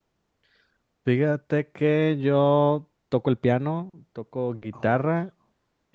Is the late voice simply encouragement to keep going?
Yes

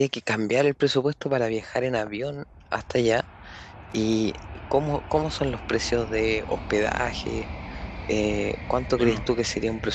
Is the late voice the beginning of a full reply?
No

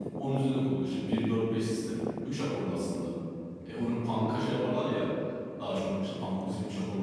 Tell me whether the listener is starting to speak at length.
No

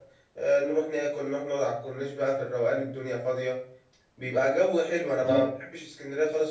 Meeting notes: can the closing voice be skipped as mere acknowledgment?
Yes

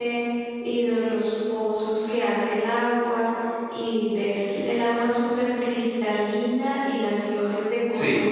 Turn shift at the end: No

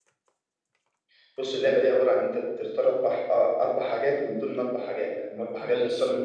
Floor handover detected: No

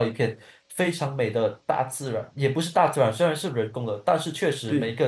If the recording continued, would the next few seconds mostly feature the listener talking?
No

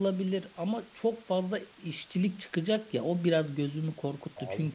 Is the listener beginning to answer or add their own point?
No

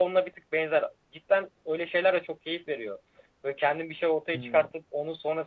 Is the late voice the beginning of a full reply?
No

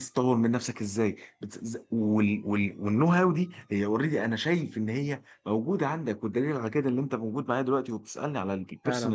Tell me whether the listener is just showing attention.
No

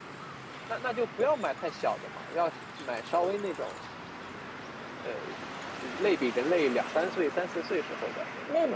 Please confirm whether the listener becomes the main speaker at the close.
Yes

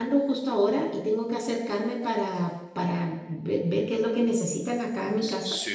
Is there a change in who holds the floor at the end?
Yes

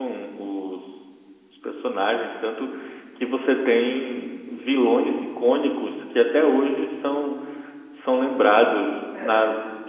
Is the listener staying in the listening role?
Yes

